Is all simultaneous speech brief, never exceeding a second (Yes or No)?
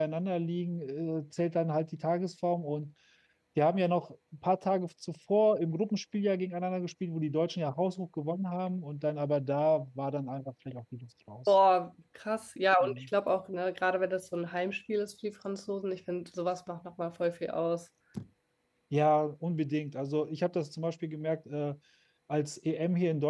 Yes